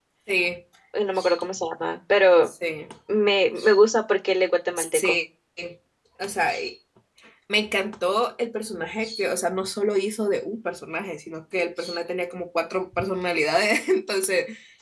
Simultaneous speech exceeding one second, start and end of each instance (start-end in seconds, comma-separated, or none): none